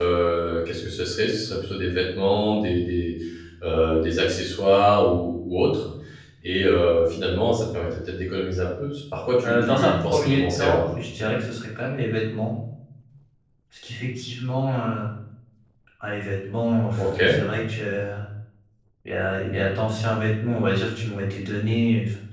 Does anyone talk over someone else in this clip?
Yes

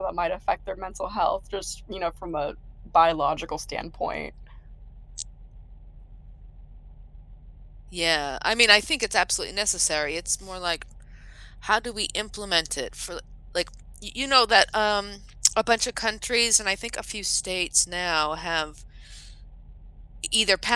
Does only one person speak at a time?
Yes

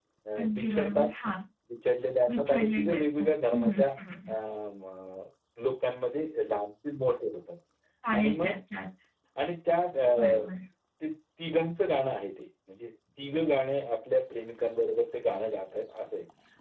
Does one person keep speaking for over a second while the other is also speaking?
Yes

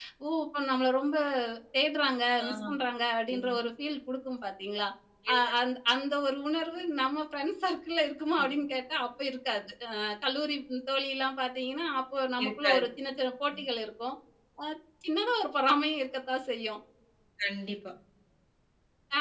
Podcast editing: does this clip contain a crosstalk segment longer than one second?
No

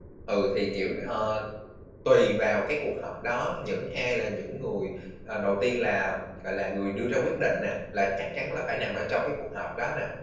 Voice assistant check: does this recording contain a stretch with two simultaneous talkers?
No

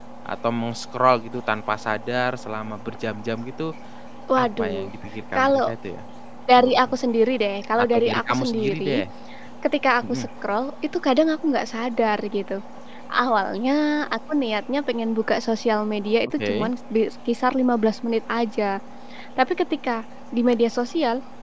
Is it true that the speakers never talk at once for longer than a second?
No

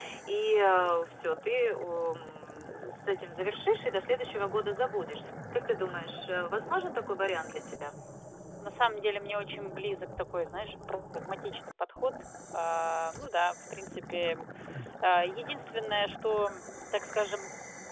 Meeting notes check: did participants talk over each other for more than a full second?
No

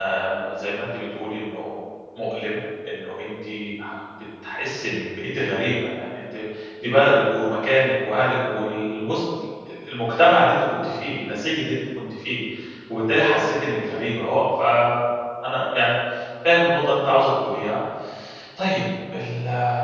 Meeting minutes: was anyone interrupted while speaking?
No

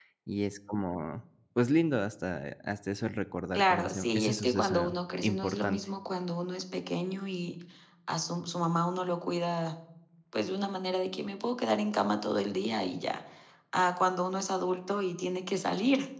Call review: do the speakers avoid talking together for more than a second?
No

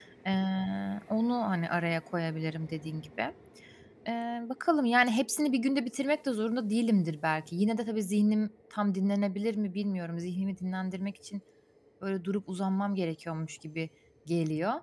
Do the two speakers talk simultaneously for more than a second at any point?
No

